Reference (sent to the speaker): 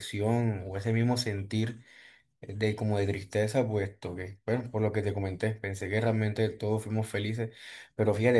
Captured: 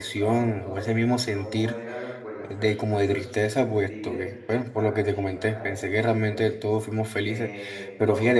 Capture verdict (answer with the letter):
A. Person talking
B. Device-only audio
A